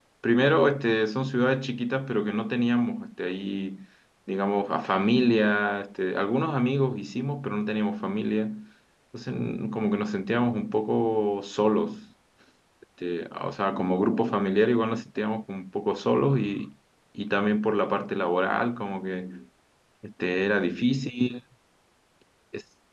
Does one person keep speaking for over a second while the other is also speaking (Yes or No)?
No